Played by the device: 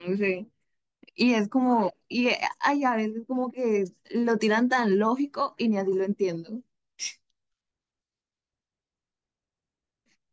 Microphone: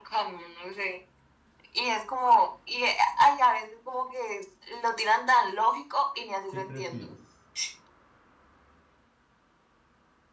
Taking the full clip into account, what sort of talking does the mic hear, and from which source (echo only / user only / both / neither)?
both